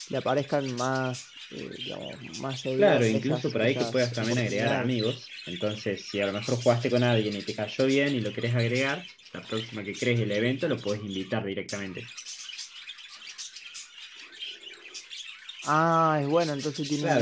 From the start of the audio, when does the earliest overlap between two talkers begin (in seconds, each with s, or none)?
2.8 s